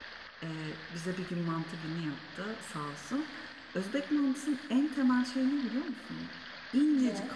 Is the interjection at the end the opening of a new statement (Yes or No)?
No